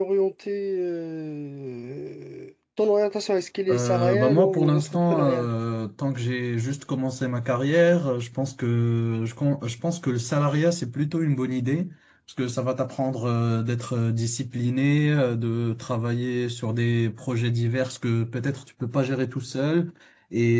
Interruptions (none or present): present